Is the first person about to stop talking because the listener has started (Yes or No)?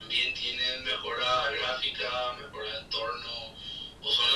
No